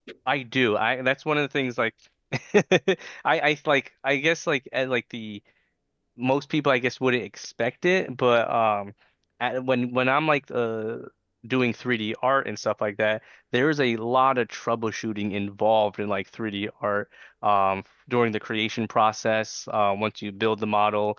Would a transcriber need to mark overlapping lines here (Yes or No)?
No